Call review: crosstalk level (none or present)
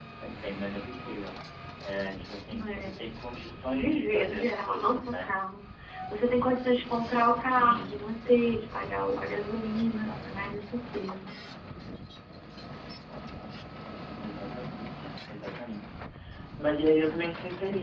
present